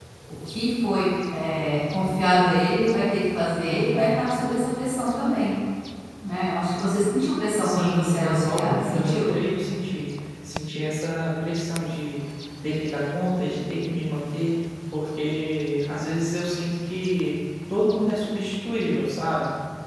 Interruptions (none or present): present